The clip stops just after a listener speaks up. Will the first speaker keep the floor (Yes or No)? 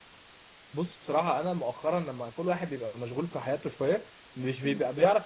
Yes